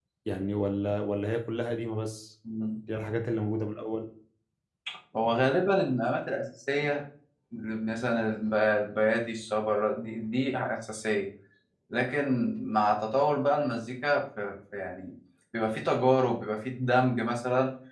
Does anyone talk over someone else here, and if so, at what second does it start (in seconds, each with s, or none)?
none